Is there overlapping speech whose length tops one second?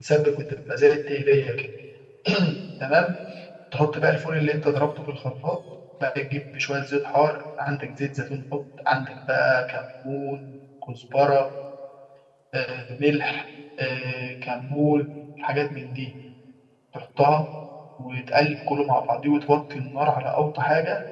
No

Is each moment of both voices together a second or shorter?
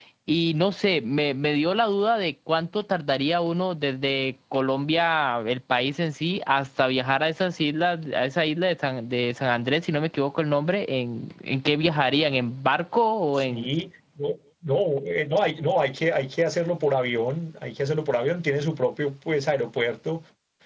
Yes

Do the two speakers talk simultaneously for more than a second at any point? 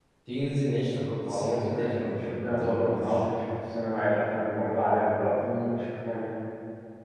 Yes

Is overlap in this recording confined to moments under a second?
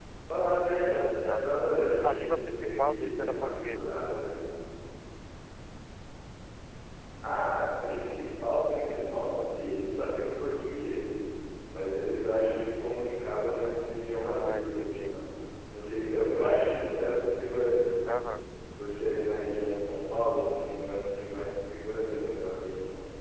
No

